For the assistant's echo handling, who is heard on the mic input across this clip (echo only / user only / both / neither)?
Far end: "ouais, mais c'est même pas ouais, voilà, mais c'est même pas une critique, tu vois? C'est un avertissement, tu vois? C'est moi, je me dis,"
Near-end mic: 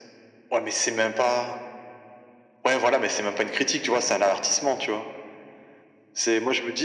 echo only